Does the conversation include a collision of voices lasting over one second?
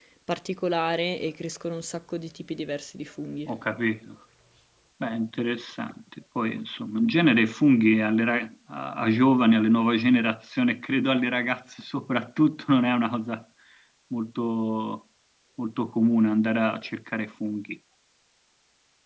No

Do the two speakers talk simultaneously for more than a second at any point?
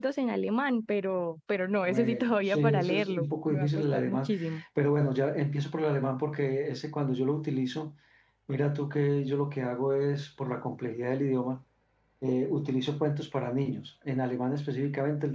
Yes, from 1.8 s

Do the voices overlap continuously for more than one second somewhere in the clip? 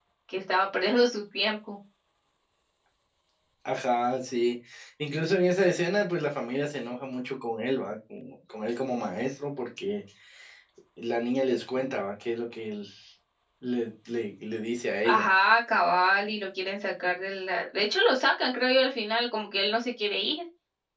No

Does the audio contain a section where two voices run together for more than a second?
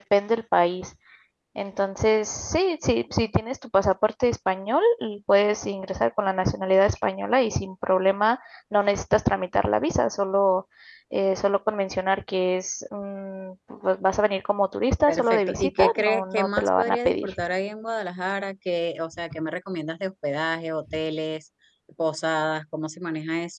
Yes, from 15.1 s

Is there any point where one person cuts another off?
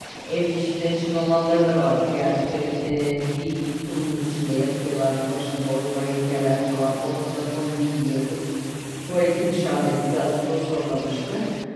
No

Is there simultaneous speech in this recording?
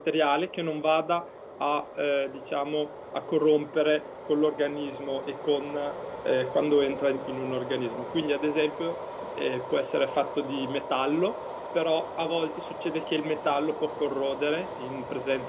No

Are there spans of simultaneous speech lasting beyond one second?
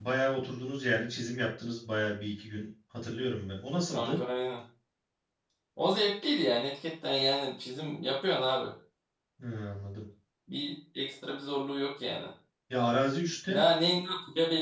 No

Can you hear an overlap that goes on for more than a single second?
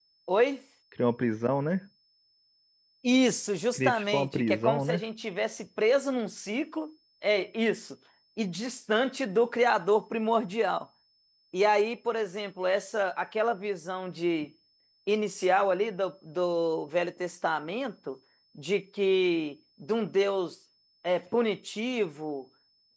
Yes, from 3.7 s

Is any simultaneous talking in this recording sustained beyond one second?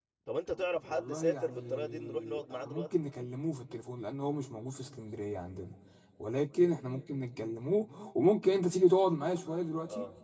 Yes, from 0.9 s

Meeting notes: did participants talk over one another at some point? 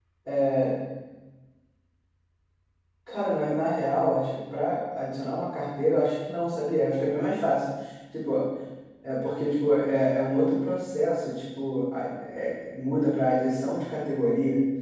No

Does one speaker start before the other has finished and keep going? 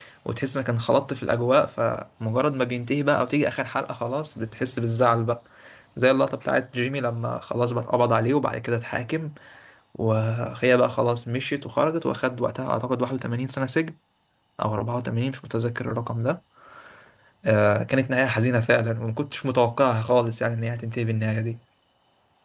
No

